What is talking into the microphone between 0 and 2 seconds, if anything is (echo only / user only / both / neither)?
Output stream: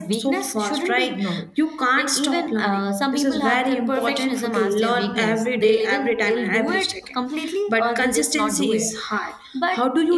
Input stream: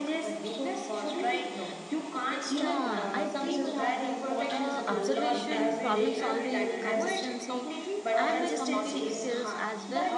echo only